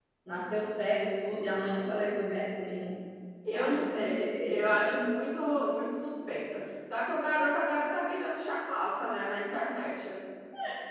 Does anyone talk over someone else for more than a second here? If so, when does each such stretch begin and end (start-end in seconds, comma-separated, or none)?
3.5-4.8